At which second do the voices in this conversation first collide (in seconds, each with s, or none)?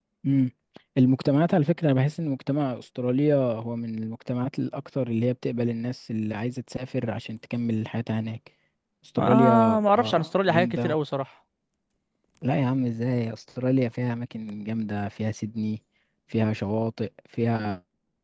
9.2 s